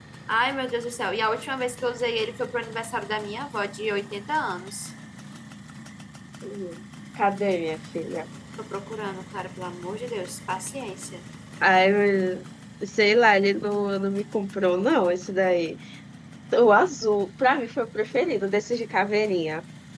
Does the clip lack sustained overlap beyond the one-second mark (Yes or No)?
Yes